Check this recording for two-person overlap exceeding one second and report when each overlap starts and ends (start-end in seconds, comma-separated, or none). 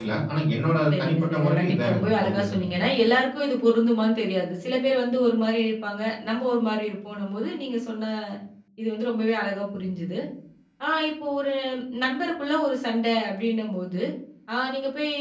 0.9-2.6